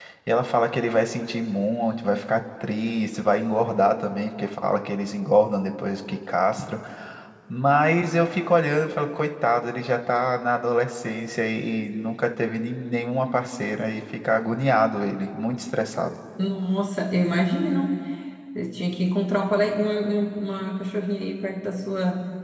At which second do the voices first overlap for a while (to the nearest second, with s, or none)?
none